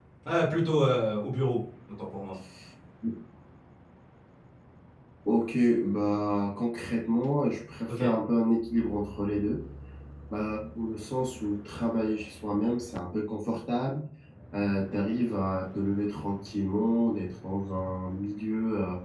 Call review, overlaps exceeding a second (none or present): none